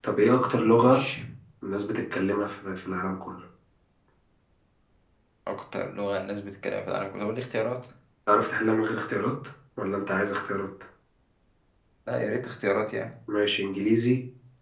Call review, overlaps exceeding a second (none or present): none